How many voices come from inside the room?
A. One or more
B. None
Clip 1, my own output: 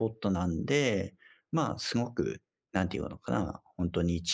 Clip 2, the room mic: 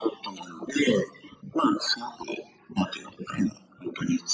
B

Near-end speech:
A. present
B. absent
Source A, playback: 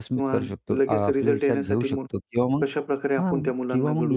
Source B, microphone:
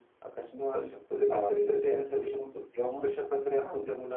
B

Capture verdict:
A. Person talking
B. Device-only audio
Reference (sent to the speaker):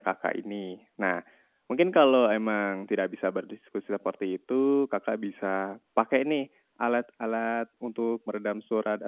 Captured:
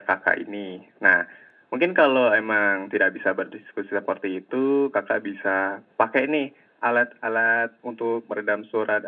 B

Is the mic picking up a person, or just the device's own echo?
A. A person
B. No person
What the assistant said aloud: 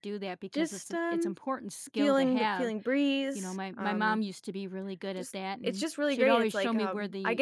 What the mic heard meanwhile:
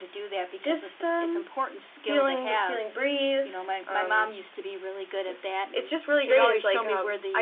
B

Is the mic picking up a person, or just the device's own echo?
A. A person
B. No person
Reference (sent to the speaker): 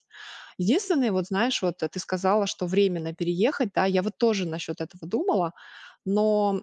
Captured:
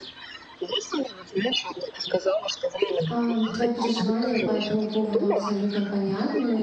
A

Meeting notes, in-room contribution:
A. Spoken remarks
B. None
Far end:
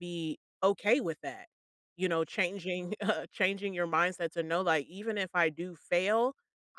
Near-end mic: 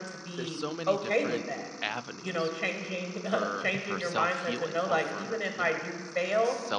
A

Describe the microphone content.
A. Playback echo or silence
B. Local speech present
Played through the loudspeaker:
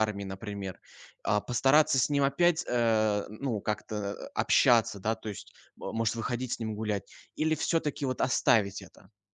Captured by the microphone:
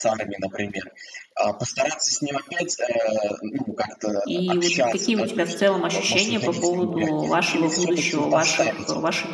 B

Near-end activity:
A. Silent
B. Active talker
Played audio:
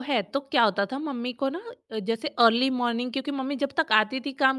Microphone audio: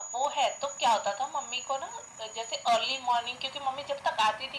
A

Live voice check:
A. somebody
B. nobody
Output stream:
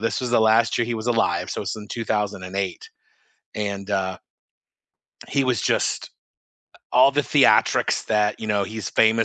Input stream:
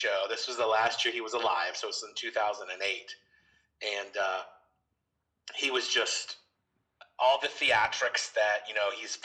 B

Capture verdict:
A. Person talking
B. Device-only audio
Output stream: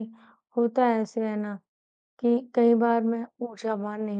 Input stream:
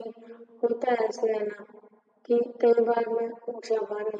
B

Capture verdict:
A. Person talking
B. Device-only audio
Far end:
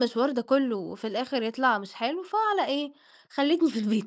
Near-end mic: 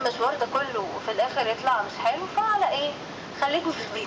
B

